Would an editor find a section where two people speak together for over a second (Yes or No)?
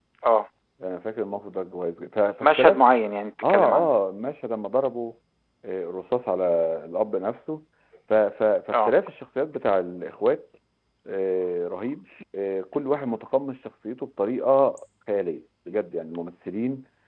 No